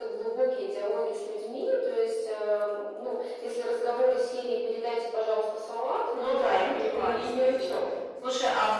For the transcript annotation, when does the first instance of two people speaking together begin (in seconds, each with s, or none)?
6.1 s